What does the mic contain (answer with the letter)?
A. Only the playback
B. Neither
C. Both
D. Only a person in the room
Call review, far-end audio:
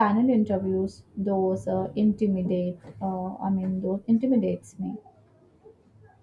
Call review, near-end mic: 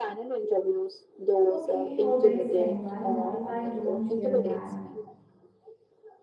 C